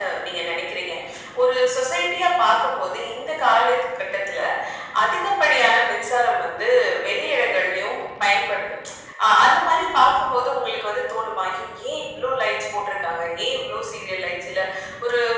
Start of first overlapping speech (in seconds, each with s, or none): none